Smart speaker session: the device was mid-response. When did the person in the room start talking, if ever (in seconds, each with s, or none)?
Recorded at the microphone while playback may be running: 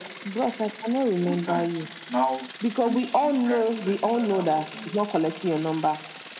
1.2 s